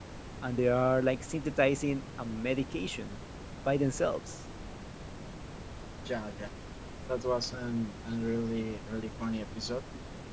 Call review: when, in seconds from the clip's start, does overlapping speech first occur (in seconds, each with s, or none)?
none